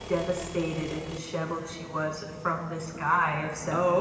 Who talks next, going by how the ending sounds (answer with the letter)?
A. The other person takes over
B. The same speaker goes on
B